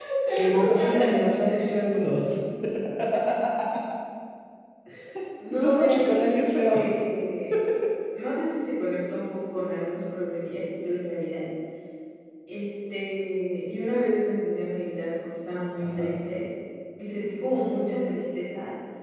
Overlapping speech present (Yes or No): Yes